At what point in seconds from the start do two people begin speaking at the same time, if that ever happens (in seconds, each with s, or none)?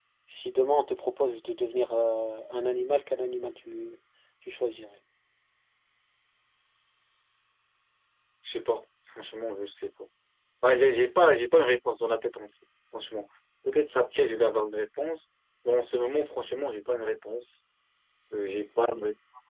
none